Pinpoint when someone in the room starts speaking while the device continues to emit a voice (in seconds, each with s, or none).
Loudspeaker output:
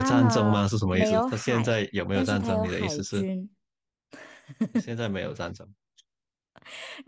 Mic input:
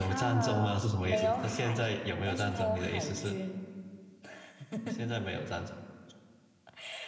none